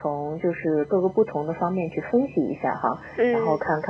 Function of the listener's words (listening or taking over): listening